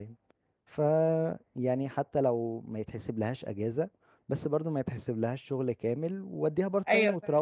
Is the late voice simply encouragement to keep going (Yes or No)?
Yes